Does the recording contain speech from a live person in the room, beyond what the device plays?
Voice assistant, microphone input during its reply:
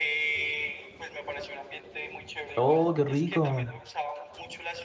Yes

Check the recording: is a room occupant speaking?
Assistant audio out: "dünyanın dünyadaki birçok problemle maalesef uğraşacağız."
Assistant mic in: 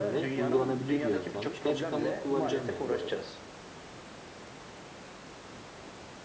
Yes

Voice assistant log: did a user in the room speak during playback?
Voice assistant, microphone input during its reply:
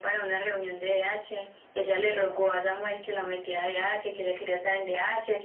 No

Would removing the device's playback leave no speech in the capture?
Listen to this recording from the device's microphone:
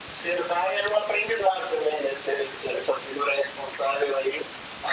Yes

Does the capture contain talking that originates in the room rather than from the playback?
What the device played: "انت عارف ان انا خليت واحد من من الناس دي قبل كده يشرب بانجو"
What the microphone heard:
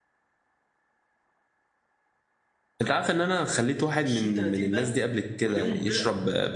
Yes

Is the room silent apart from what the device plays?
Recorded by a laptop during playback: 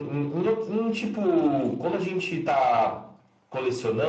Yes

